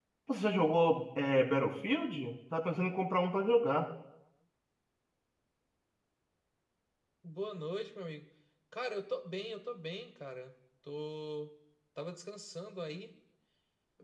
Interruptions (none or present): none